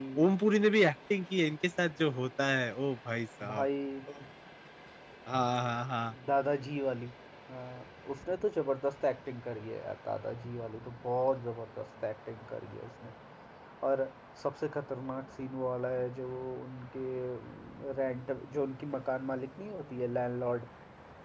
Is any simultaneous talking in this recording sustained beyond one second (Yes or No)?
No